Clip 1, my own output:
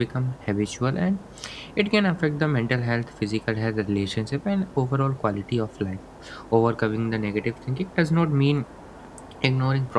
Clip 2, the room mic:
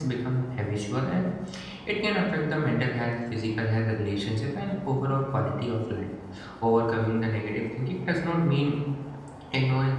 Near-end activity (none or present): none